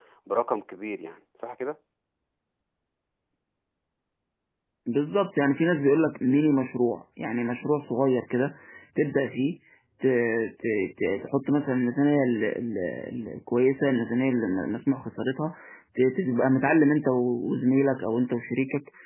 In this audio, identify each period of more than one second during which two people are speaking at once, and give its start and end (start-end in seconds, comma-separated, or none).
none